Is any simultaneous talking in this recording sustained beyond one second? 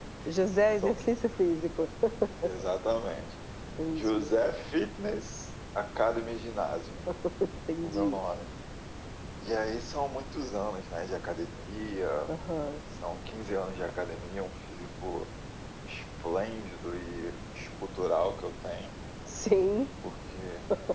No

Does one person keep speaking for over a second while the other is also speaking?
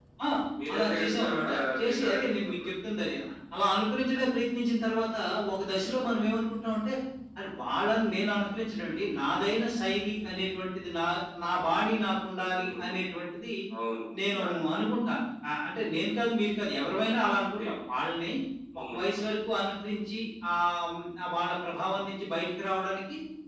Yes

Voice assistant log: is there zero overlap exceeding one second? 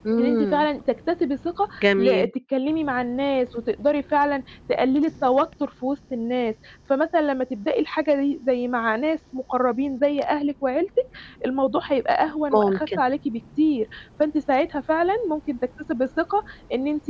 Yes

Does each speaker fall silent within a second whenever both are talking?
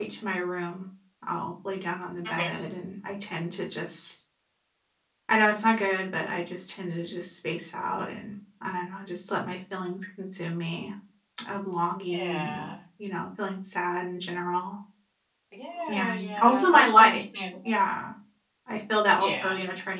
No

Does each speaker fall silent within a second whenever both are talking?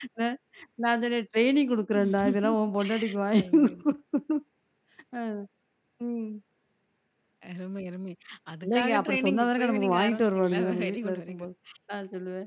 No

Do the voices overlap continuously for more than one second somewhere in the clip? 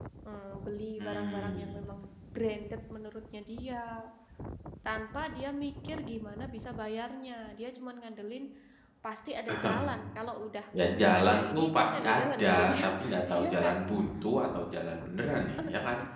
Yes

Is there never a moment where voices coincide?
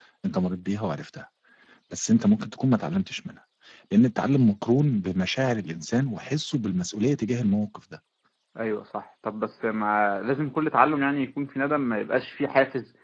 Yes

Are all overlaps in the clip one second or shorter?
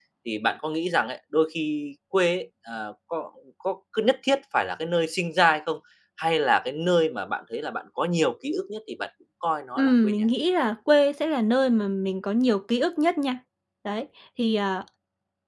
Yes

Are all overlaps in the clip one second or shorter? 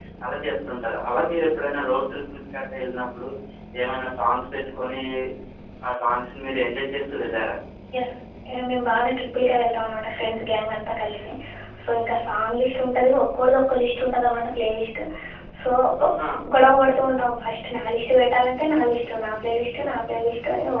Yes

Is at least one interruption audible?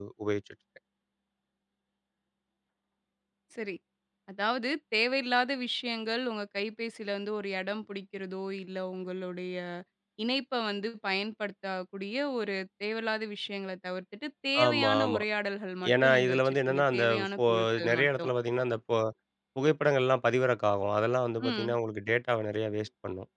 Yes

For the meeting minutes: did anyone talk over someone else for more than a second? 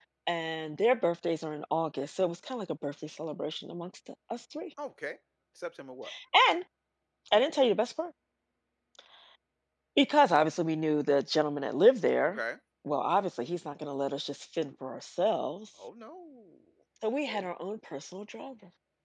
No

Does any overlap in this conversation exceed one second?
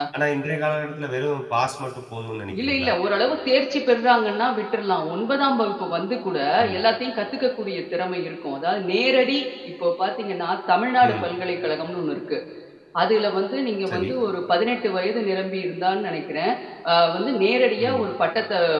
No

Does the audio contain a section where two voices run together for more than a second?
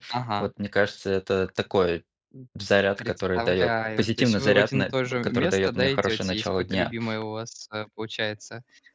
Yes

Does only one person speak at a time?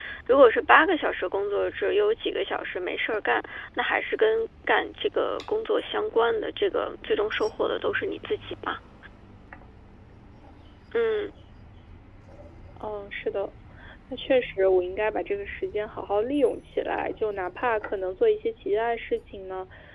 Yes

